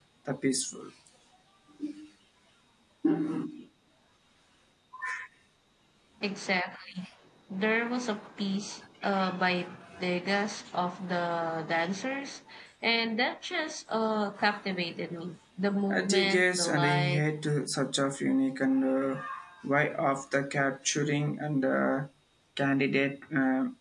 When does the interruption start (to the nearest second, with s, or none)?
16 s